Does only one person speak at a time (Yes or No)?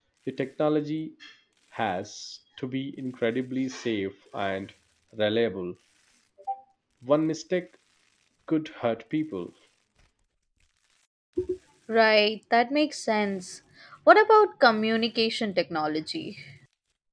Yes